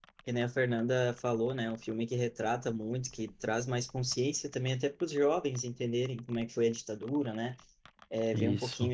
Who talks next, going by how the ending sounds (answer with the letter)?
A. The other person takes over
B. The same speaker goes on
B